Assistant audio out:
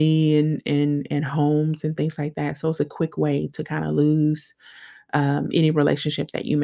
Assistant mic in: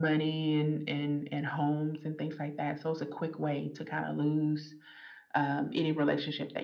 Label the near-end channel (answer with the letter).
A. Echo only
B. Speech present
A